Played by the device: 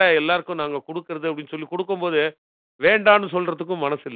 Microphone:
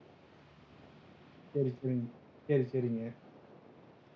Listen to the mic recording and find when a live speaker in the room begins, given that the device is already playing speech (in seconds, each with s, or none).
1.5 s